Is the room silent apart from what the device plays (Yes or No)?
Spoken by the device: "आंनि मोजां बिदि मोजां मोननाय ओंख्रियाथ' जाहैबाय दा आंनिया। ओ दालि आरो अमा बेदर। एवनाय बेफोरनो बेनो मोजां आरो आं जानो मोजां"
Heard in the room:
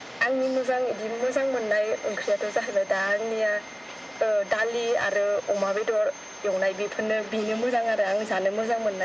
Yes